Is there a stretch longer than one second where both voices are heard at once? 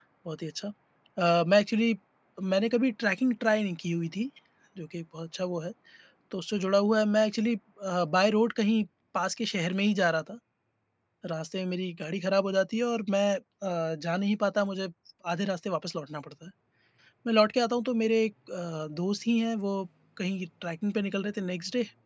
No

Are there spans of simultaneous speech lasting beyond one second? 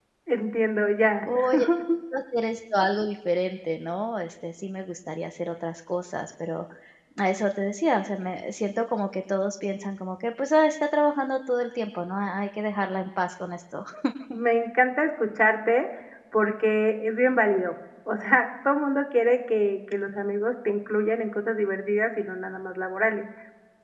No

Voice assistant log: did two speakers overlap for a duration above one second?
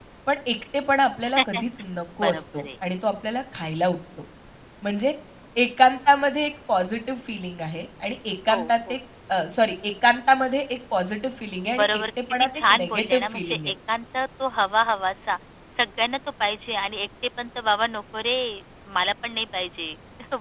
Yes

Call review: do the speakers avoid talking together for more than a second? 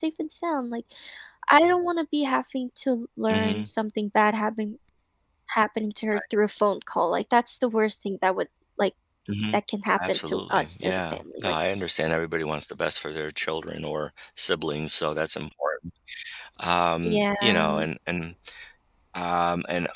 No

